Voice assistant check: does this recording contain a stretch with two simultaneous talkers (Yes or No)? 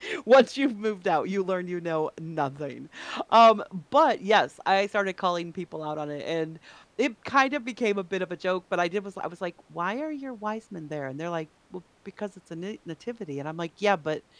No